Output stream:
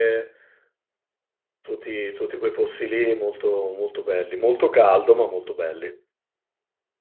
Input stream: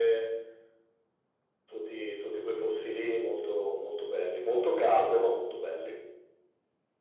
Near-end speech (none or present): none